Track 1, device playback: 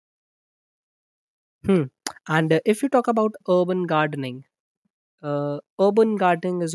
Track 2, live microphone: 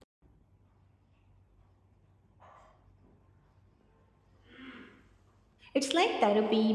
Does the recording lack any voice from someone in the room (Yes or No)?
No